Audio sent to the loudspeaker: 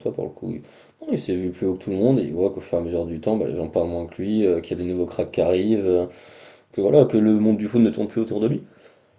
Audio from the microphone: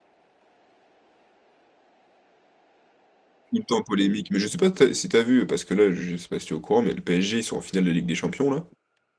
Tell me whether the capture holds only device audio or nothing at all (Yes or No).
No